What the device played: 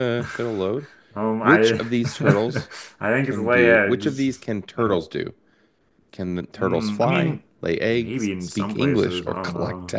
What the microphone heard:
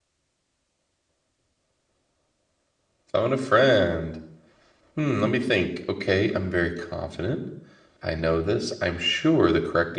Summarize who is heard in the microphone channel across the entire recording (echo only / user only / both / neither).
user only